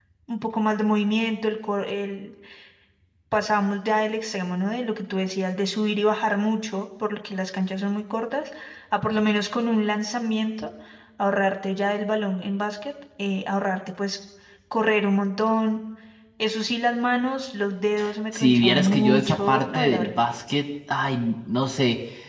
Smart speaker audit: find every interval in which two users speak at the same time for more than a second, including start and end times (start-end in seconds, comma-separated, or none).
18.3-20.2